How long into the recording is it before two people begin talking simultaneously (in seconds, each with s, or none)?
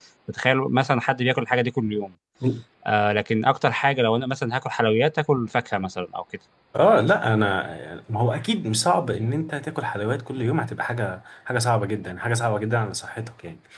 none